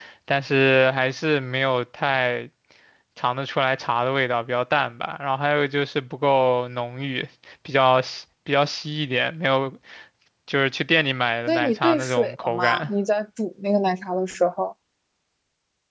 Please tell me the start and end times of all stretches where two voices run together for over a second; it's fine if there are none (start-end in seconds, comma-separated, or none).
11.5-12.9